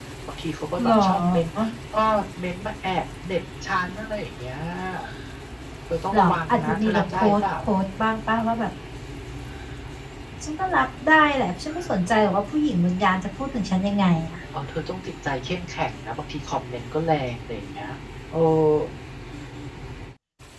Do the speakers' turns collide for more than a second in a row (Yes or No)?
Yes